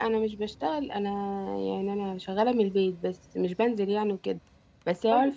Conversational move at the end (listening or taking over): listening